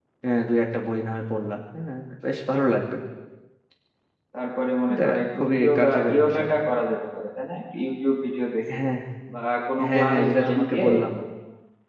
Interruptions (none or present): present